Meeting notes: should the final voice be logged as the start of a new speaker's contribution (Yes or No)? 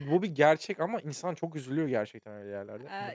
Yes